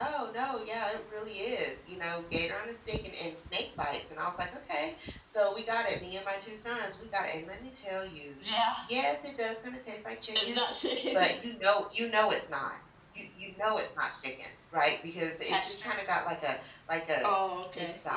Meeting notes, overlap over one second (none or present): none